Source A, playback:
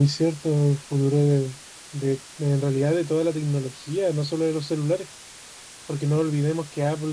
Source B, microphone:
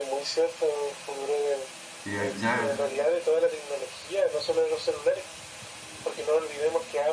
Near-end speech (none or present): present